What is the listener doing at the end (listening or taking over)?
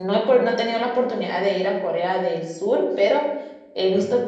listening